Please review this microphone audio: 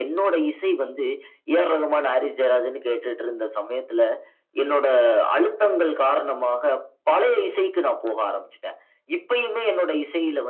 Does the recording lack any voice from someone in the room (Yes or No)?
Yes